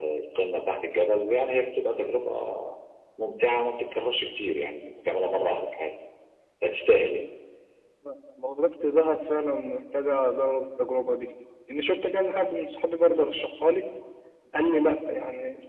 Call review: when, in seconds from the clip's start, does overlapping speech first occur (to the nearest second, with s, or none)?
none